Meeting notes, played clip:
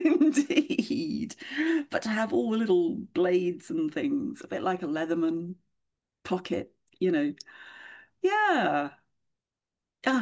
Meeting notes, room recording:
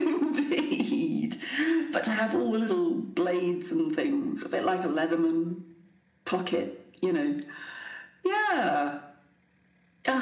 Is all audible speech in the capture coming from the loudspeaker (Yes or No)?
Yes